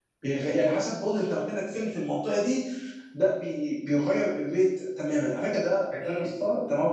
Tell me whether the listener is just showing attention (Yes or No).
Yes